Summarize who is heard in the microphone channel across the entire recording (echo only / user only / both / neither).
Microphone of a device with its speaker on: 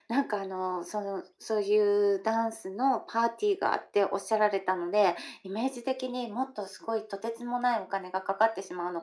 echo only